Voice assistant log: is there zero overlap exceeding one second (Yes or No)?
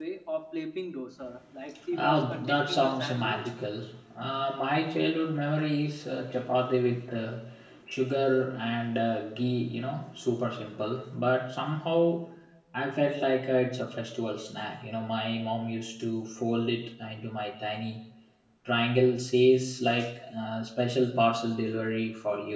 No